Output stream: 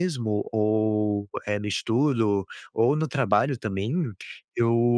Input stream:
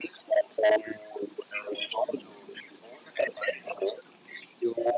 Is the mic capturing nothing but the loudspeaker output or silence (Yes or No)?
Yes